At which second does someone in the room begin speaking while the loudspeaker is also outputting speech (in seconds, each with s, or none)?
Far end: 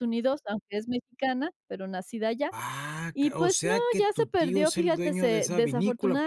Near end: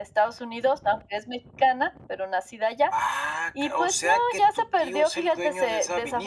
none